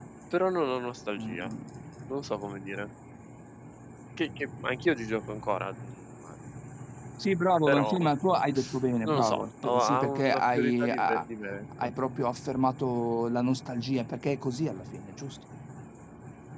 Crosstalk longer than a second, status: present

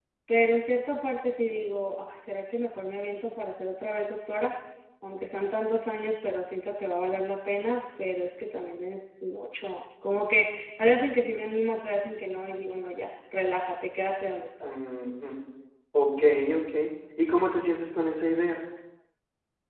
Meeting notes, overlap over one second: none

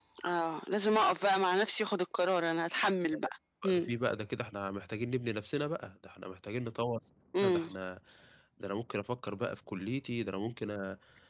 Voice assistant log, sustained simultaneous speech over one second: none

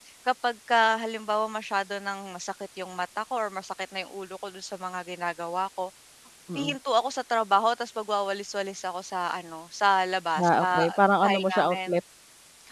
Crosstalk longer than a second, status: present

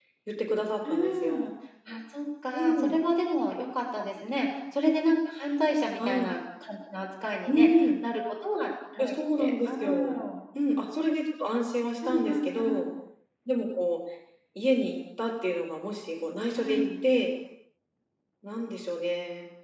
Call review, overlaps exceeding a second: present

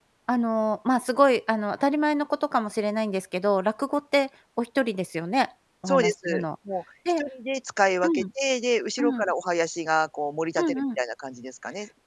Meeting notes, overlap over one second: none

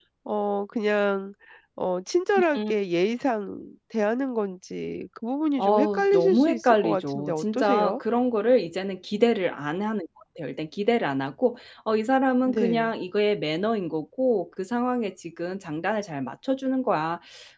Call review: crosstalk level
present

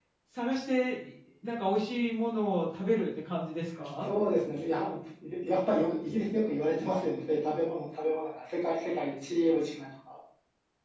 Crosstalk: none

